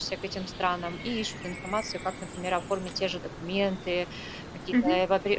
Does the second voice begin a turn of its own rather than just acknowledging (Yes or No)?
No